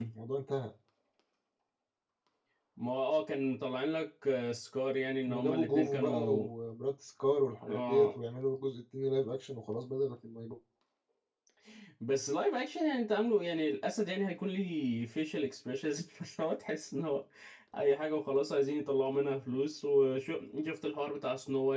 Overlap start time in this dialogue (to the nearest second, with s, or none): 5 s